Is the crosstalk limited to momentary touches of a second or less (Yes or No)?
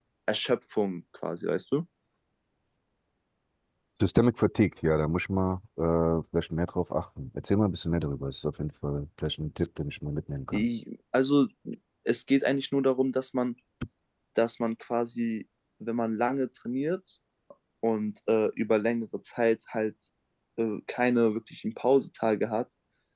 Yes